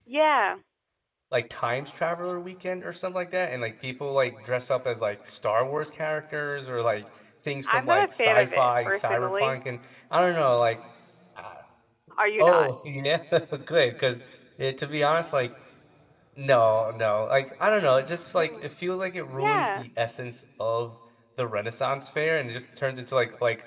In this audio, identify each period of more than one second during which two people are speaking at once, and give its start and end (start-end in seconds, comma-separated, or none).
7.7-9.6